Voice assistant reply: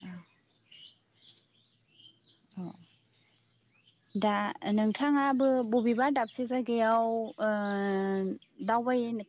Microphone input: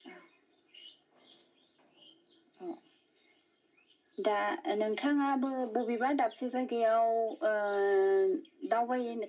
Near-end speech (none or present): none